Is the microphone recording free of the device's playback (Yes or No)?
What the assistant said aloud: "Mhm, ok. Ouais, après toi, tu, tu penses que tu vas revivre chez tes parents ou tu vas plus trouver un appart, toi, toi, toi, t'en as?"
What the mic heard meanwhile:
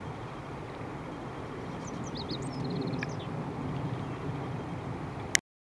Yes